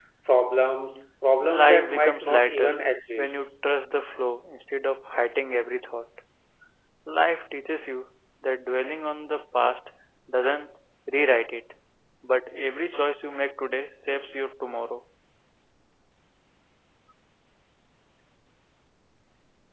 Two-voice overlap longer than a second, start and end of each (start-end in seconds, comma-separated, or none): 1.4-2.7